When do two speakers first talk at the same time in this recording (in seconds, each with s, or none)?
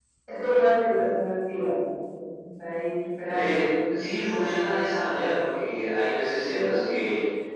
3.3 s